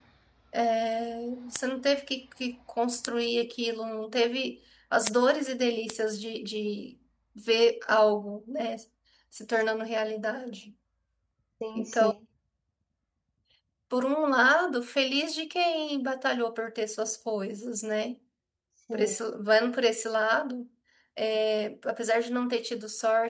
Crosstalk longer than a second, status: none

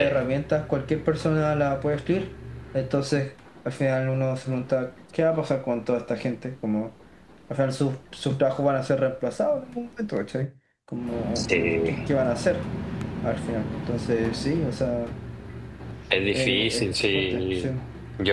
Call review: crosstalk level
present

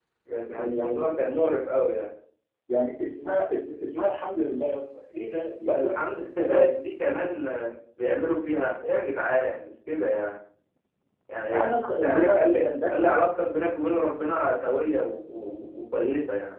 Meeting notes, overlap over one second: present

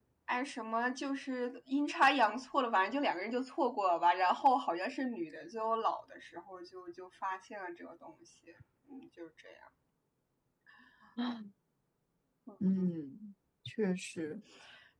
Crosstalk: none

